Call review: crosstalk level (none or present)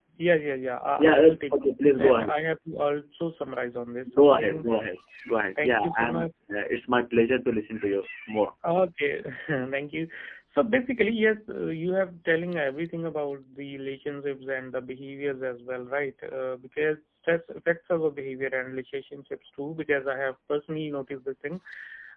present